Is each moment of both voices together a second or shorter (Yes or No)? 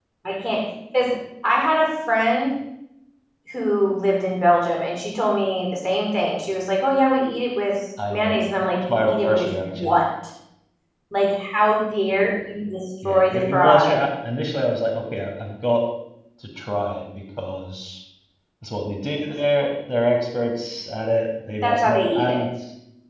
No